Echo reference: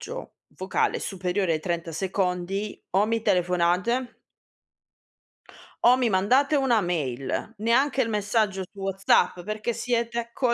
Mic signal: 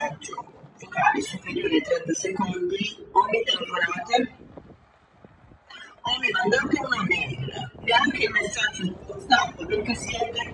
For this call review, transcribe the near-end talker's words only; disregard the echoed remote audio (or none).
none